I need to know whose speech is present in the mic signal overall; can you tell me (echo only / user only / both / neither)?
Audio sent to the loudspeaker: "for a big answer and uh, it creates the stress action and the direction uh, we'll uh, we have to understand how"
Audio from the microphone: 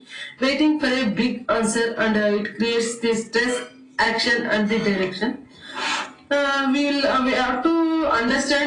echo only